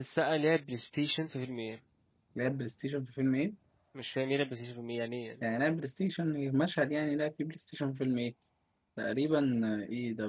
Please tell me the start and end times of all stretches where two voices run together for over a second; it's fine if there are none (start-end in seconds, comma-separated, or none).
none